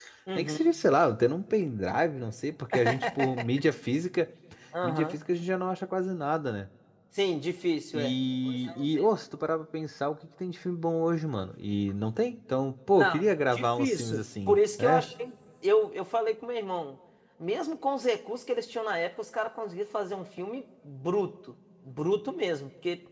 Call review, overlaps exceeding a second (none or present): present